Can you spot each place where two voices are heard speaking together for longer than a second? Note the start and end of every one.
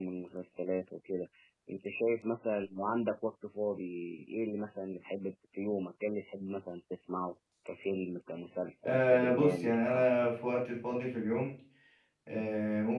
8.8-10.1

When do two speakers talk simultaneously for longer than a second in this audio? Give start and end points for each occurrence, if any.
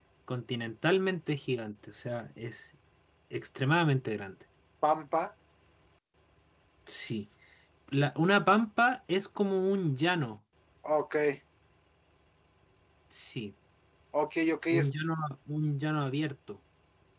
none

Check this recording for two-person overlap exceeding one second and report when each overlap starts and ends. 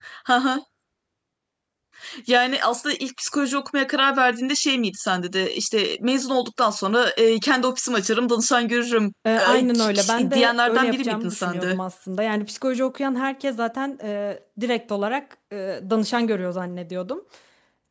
9.5-11.8

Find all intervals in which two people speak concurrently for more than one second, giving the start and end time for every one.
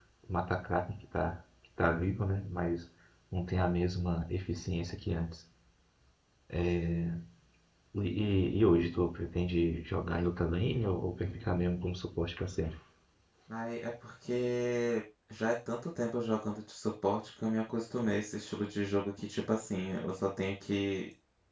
none

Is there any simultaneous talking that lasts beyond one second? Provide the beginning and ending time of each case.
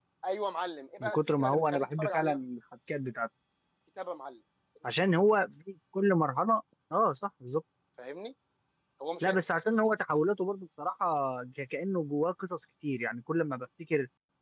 1.0-2.4

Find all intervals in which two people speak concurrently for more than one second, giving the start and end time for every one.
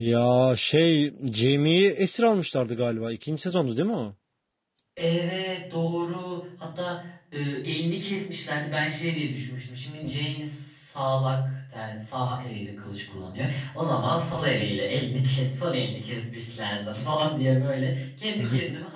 none

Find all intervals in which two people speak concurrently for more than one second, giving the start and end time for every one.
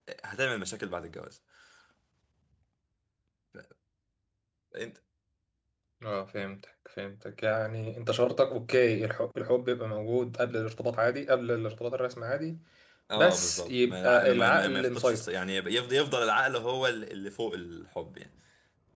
13.2-15.3

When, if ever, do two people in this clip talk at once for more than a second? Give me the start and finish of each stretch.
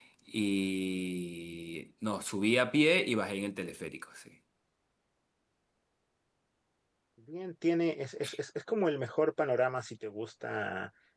none

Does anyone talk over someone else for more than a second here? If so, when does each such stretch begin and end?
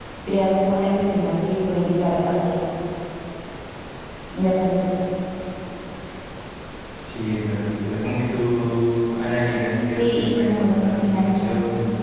9.8-11.3

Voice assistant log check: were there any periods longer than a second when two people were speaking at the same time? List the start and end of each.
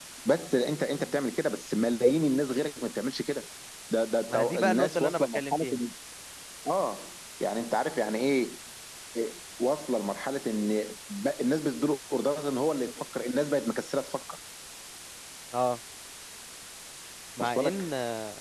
4.3-5.8

